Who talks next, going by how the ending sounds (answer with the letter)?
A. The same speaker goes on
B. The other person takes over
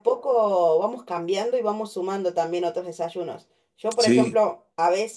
A